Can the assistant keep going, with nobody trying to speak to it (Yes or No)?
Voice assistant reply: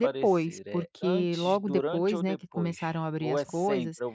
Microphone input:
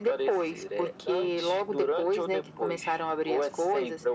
Yes